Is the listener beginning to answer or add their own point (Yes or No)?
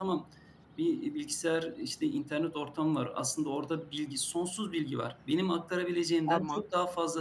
No